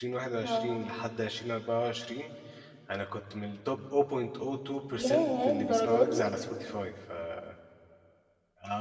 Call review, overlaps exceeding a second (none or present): present